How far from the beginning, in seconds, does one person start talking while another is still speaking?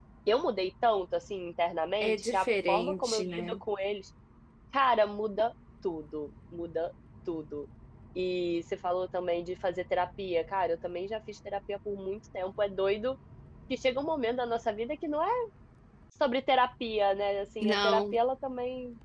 2.0 s

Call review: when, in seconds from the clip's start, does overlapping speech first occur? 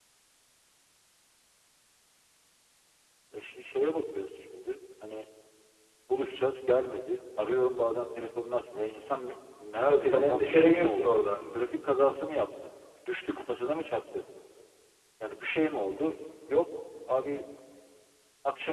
9.8 s

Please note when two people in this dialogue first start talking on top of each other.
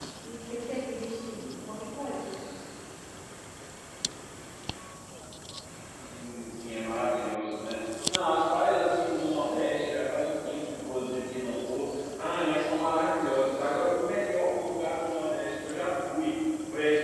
none

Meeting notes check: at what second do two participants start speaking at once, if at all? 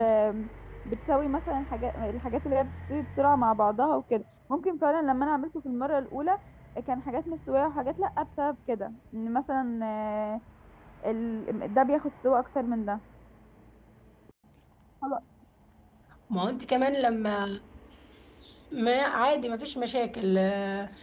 none

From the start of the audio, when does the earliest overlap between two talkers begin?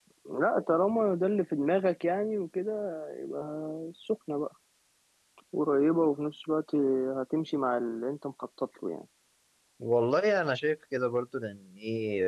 none

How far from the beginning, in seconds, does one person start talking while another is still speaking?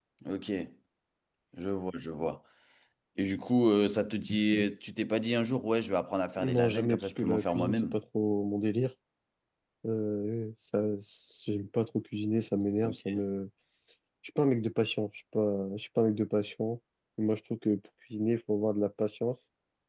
6.4 s

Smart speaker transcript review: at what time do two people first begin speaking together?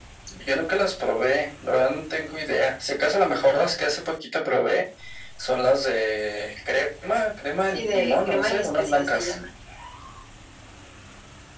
7.7 s

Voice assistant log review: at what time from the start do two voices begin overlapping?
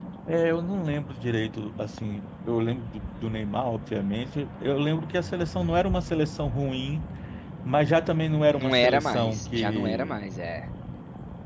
8.5 s

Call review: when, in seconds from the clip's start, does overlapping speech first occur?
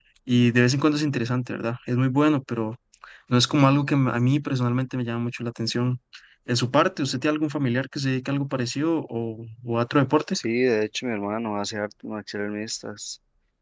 none

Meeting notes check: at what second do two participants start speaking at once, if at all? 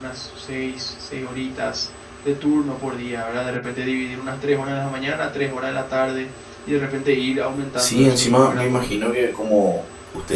7.7 s

